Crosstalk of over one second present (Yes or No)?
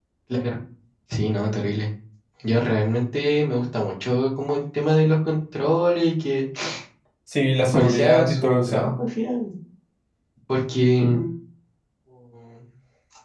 Yes